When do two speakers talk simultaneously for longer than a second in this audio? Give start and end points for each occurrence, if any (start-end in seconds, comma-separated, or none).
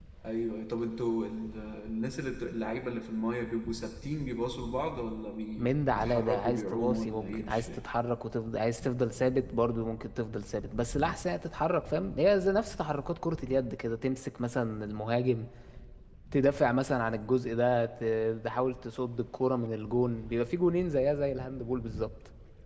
5.6-7.8